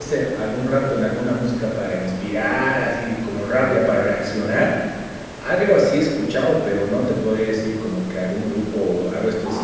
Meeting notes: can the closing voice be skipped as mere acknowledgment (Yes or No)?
No